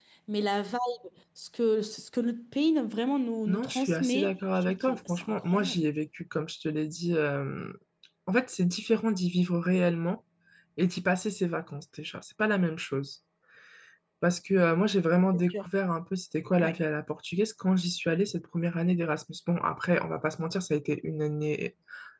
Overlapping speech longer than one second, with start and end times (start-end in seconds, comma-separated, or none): 3.5-5.9